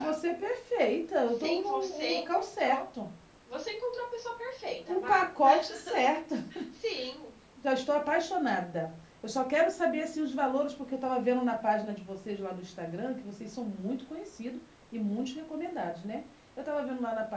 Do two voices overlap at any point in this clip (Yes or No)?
Yes